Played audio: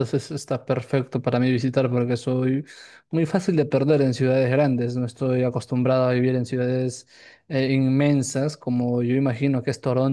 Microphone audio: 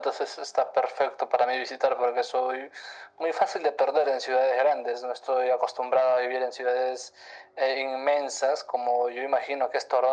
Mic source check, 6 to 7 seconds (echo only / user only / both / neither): echo only